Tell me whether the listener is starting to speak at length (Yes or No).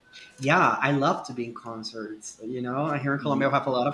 No